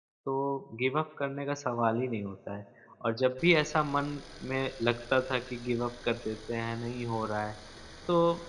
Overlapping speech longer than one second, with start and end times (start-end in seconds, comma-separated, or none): none